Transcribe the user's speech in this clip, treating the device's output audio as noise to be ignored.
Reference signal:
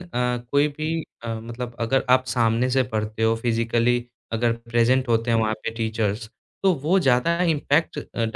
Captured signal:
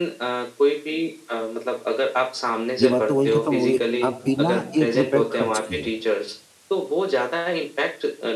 ये बात तो वहीं खत्म हो गई। आप बिना ₹1 खर्च किए

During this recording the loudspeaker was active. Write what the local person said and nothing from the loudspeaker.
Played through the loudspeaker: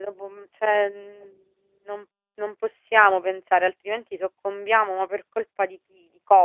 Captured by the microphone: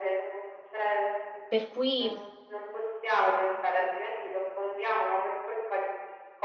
per cui

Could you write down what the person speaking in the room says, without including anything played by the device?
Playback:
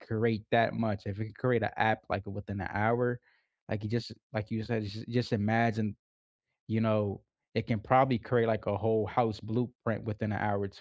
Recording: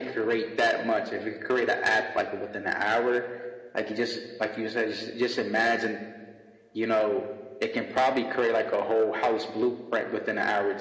none

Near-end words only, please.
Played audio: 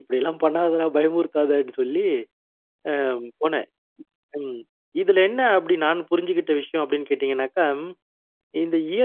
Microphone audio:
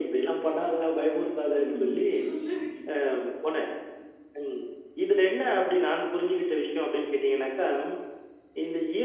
ம் சொல்லுங்க.

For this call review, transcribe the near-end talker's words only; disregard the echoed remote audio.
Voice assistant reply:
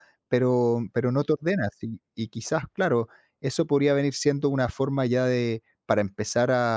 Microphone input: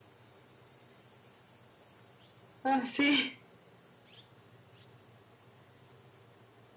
Ah, sí.

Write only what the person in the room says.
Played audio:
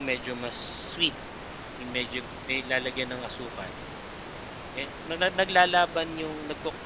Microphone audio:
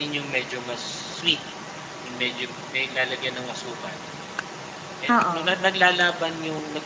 oo,

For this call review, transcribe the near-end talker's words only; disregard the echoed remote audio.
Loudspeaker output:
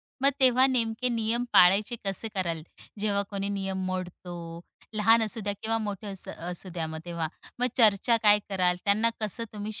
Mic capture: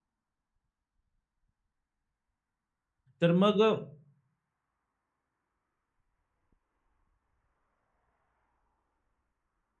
तर मग अ,

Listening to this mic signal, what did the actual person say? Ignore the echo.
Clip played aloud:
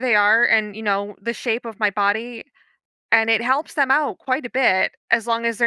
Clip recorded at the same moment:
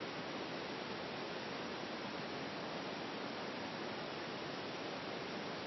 none

